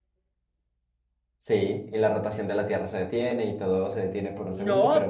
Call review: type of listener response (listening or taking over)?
taking over